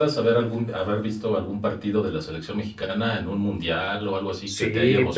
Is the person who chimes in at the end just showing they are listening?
No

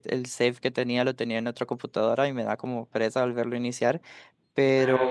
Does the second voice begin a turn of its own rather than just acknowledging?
No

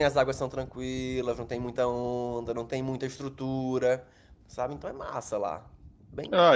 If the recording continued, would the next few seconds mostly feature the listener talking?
Yes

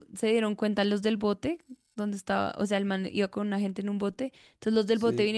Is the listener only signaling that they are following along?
Yes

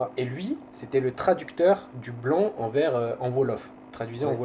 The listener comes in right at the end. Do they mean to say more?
No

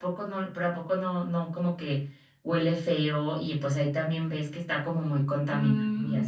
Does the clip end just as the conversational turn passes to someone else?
Yes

